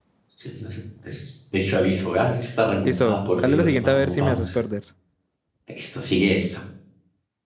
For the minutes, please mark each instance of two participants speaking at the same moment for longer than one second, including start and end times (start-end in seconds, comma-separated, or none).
2.8-4.6